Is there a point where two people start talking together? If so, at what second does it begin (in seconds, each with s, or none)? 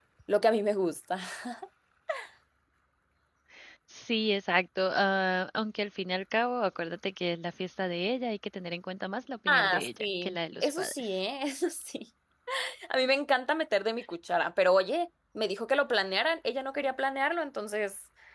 9.5 s